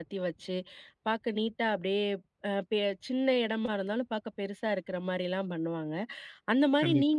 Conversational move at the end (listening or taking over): listening